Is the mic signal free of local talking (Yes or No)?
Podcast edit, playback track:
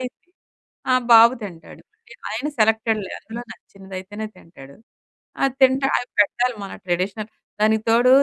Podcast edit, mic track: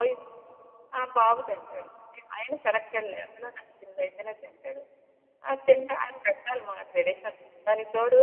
Yes